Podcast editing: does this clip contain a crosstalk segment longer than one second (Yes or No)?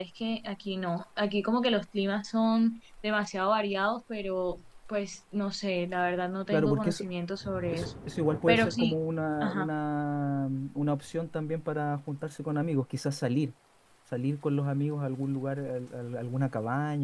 No